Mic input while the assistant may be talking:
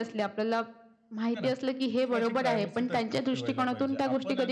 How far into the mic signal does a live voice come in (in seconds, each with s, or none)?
1.3 s